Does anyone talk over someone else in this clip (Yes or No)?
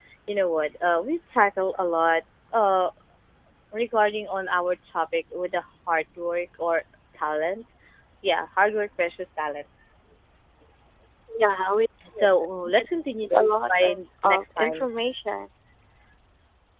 Yes